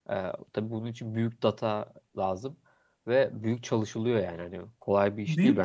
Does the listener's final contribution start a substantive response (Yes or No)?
Yes